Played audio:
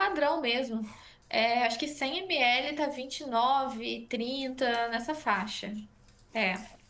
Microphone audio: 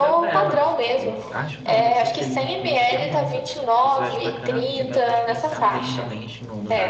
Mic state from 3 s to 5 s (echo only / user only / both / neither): both